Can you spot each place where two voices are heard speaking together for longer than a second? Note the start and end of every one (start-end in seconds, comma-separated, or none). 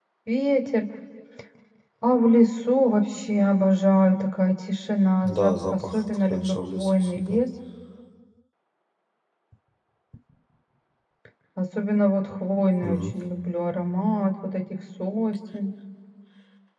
5.2-7.4